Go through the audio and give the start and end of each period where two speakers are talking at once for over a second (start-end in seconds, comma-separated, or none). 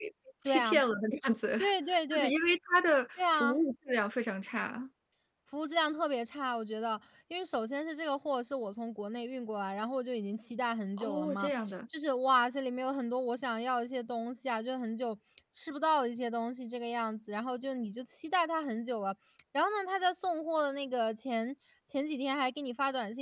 none